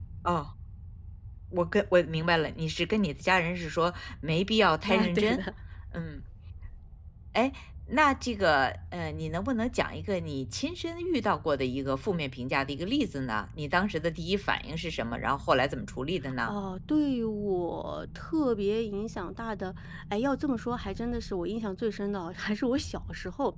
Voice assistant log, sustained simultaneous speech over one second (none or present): none